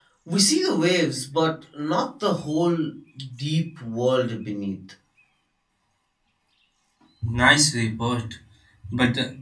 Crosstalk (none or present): none